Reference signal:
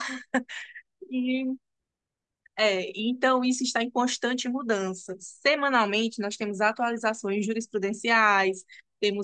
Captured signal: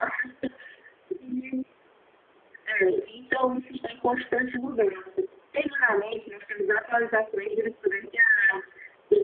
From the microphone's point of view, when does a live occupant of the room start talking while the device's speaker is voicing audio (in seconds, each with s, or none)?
none